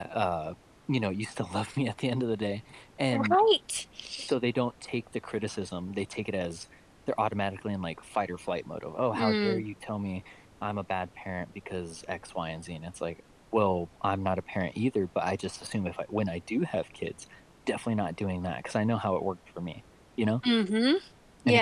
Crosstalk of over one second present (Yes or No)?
No